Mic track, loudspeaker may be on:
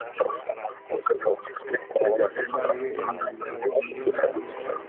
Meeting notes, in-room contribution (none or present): present